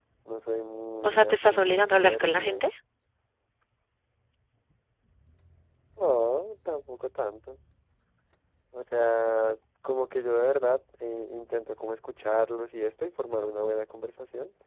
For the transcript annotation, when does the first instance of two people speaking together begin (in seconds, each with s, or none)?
1.0 s